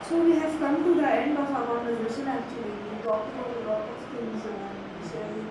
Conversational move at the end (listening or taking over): taking over